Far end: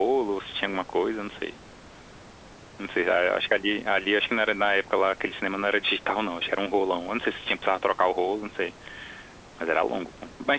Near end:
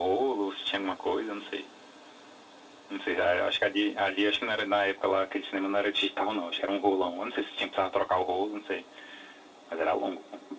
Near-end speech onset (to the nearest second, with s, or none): none